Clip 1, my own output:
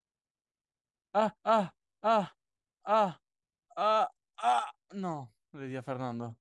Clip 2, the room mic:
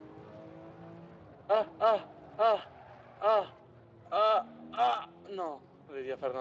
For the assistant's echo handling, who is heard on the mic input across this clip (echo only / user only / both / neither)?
echo only